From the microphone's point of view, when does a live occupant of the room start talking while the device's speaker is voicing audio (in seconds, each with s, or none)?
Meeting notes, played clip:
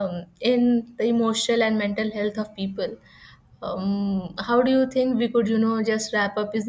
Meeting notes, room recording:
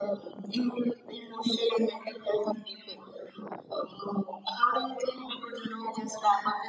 none